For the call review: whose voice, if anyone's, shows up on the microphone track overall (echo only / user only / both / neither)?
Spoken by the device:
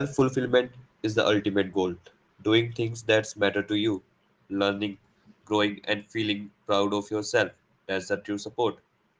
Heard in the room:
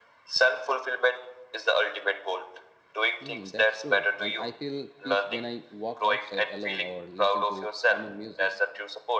both